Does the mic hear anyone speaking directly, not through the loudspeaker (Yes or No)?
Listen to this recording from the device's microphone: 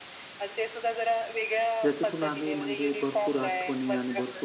Yes